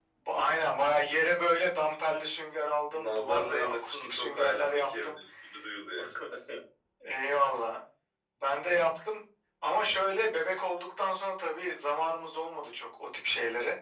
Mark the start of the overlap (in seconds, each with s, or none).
2.9 s